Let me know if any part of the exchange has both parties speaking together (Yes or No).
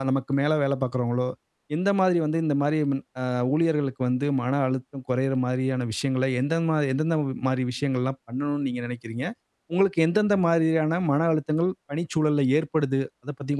No